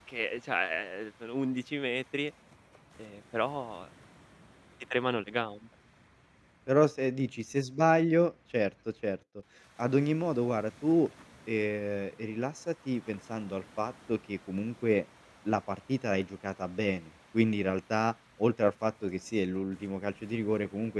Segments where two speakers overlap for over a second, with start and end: none

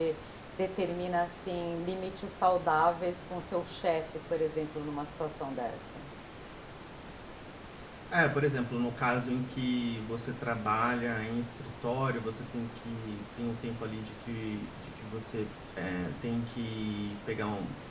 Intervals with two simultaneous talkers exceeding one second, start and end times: none

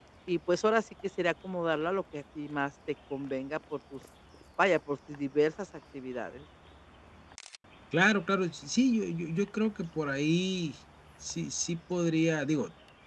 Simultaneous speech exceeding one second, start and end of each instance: none

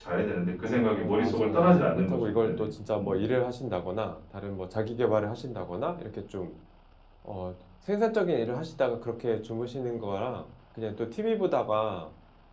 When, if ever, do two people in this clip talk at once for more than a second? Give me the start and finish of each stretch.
0.6-2.6

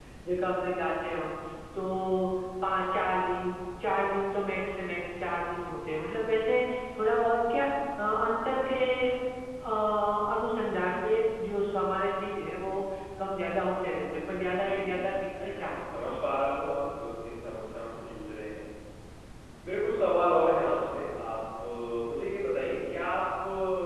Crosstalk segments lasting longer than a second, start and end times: 14.5-15.8

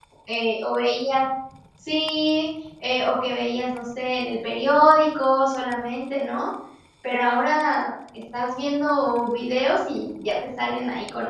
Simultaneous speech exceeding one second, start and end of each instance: none

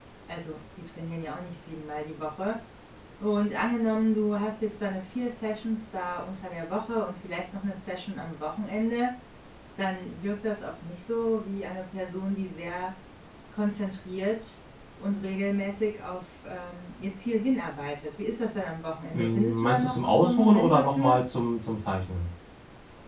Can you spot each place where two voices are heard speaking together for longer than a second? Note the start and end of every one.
19.1-21.2

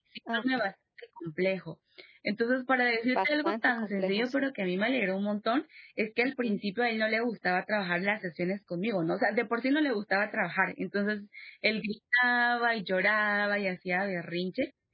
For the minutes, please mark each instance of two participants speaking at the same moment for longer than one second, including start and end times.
3.1-4.4

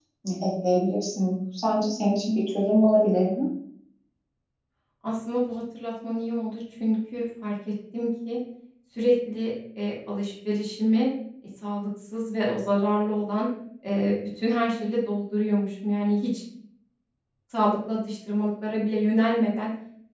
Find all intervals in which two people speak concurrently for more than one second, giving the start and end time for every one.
none

